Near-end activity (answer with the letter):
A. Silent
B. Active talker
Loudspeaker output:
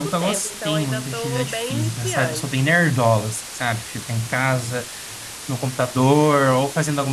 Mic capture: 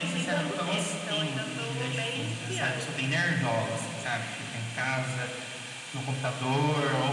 A